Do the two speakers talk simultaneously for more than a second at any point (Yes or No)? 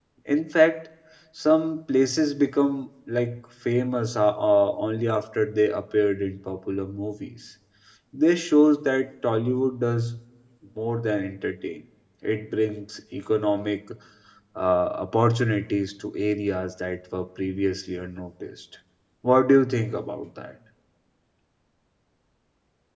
No